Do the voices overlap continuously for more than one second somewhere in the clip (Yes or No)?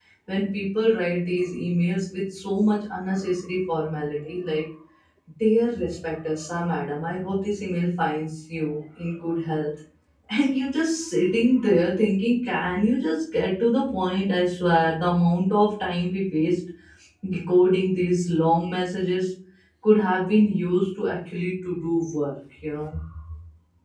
No